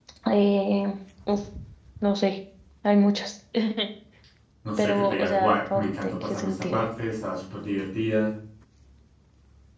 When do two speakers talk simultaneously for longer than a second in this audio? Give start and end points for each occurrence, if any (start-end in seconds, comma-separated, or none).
4.8-6.8